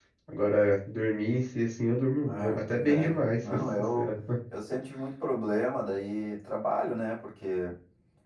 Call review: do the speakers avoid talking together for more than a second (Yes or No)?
No